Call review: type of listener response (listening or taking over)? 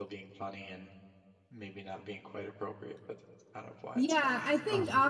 taking over